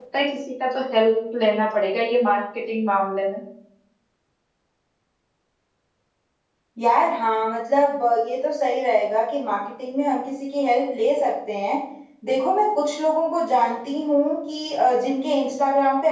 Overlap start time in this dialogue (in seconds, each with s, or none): none